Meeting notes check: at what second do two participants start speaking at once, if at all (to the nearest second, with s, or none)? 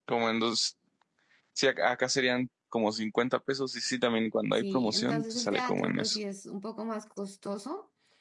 5 s